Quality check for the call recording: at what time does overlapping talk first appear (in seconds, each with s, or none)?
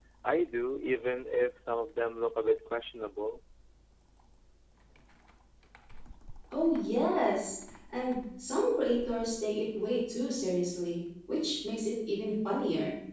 none